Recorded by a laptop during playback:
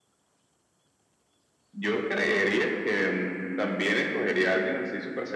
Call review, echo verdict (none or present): present